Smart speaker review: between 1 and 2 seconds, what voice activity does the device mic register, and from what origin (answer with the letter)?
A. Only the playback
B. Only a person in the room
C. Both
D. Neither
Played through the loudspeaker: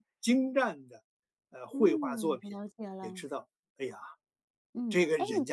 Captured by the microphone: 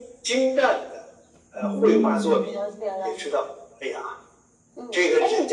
C